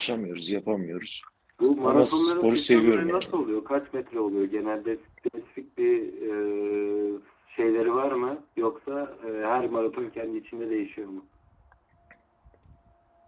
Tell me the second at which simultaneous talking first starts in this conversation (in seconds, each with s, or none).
1.8 s